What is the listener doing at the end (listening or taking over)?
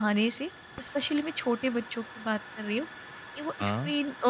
listening